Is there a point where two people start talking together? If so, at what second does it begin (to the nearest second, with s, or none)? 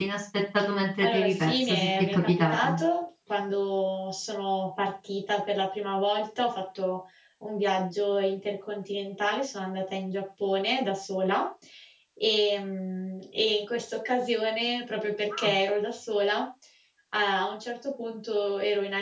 1 s